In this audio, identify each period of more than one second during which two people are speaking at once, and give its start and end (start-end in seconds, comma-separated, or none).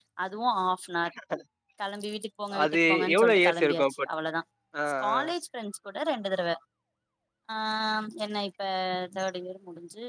2.6-3.9